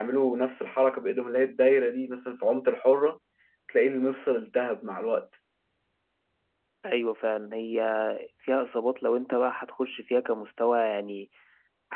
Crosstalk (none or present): none